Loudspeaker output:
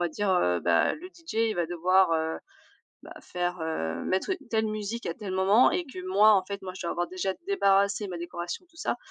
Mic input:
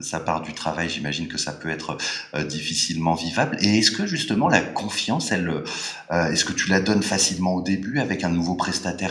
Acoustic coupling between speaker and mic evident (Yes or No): No